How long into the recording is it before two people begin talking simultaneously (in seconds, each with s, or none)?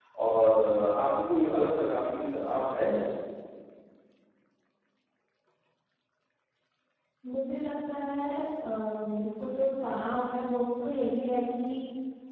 none